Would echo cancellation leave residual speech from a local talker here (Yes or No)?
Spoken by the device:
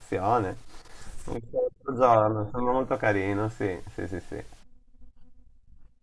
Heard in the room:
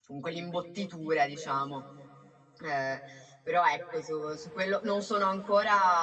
Yes